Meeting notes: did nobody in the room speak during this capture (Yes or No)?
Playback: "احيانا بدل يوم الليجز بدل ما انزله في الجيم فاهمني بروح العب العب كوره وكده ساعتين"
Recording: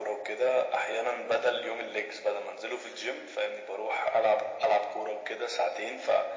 Yes